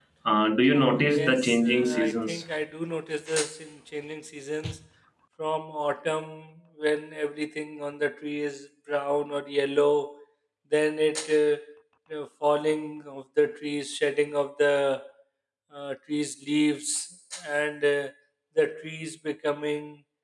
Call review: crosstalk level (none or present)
present